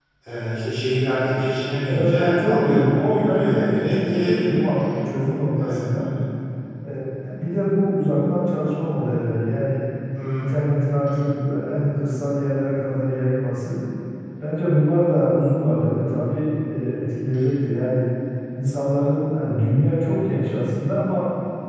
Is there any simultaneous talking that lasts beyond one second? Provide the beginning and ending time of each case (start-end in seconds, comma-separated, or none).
1.8-4.7